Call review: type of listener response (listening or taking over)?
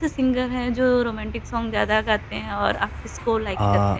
taking over